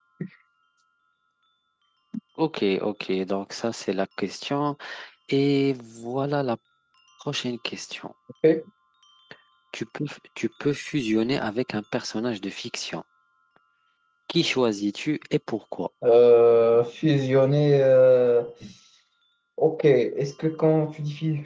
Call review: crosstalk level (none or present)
none